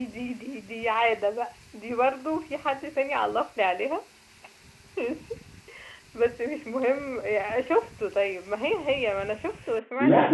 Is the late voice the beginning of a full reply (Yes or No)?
Yes